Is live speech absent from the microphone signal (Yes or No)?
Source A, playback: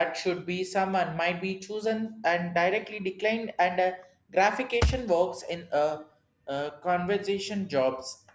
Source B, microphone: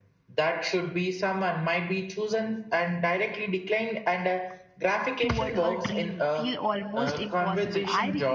No